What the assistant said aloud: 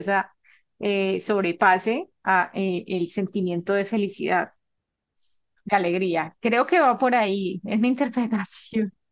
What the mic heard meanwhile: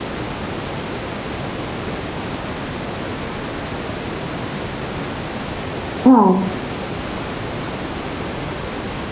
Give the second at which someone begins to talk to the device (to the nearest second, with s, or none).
6 s